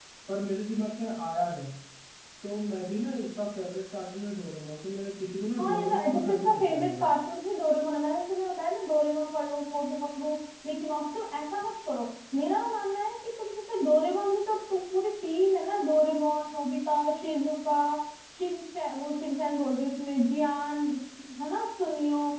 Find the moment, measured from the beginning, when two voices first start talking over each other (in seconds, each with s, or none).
5.6 s